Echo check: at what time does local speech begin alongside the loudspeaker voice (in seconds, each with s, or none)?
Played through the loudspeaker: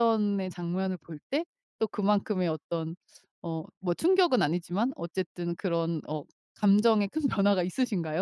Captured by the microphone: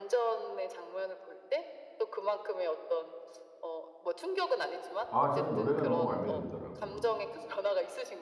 5.1 s